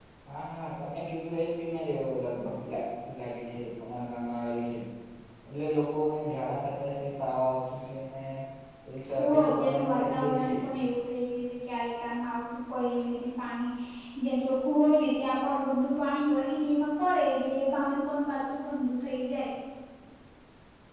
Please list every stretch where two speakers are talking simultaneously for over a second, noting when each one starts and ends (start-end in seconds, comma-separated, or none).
9.2-10.5